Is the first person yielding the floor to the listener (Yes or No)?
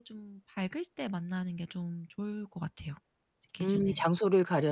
Yes